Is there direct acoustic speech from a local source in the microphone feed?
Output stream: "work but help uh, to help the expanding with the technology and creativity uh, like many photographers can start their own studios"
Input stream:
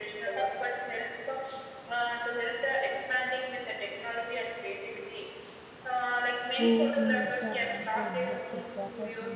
Yes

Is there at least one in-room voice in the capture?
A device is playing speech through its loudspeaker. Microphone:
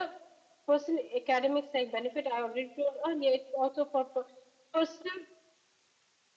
No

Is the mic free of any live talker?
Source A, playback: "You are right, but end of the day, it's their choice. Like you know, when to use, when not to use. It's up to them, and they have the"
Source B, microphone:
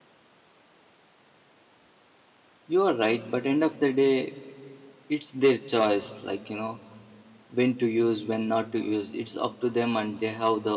Yes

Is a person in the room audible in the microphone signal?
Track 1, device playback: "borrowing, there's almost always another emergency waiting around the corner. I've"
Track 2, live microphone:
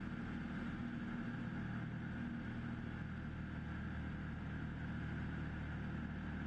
No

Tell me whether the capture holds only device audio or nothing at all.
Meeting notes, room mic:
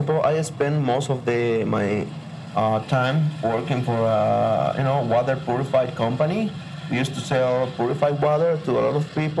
Yes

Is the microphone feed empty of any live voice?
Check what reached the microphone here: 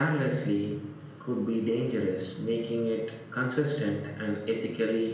Yes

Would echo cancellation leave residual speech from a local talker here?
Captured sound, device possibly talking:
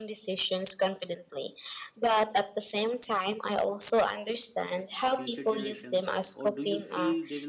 Yes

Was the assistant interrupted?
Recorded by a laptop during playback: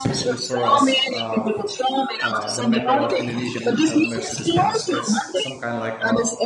Yes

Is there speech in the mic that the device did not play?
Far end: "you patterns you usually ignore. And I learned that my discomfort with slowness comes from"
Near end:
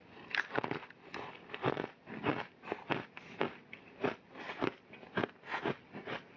No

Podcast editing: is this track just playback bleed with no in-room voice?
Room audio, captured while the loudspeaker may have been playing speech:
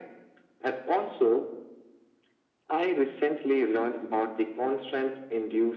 Yes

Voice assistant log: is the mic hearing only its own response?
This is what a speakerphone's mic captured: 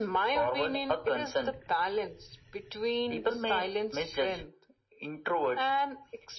Yes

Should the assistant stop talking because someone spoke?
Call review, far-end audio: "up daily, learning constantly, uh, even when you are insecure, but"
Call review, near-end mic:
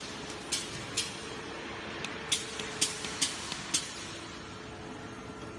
No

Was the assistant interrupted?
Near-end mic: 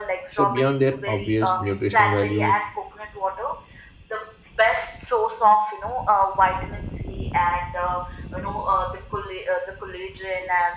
Yes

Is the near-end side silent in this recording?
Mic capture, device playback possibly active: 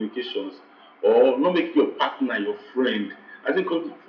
Yes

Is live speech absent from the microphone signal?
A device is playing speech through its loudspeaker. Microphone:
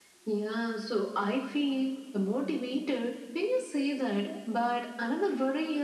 Yes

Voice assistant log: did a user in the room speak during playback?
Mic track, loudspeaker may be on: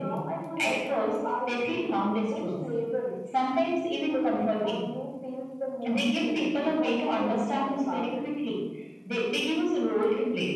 No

